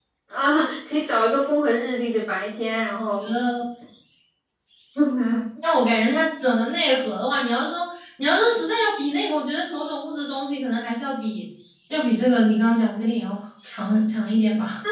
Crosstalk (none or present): none